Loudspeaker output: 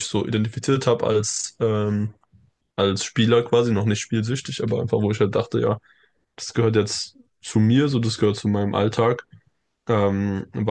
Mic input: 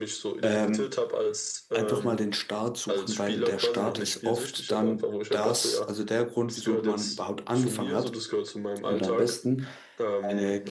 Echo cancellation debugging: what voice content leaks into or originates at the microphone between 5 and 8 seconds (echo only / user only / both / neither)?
both